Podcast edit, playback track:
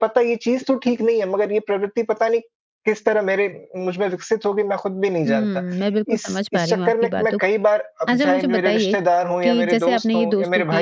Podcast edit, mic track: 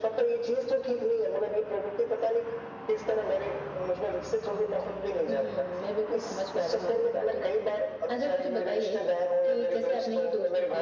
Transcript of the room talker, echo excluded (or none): none